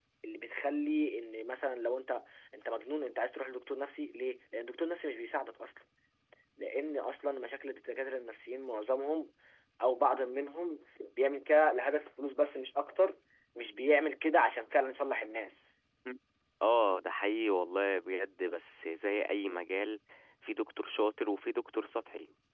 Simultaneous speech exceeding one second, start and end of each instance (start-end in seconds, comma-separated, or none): none